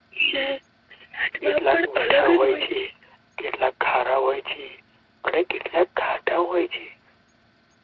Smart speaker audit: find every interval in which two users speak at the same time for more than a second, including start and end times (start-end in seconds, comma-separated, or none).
1.4-2.8